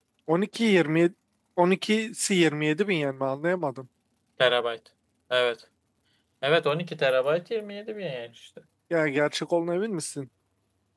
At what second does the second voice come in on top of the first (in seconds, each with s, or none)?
none